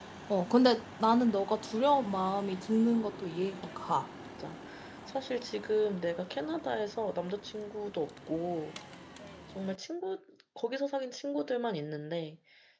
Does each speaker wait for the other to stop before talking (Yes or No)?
Yes